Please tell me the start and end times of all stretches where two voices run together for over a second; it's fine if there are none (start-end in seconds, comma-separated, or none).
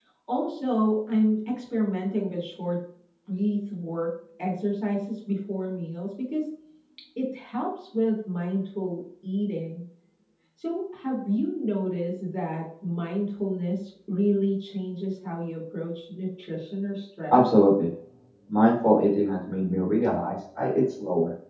none